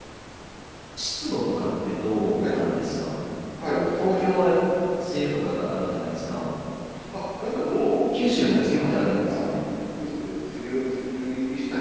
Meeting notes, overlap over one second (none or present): present